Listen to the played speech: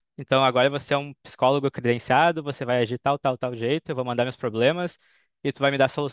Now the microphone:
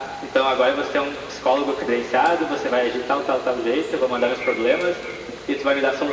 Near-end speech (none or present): none